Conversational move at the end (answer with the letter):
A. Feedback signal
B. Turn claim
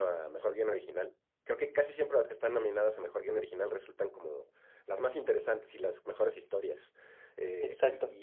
A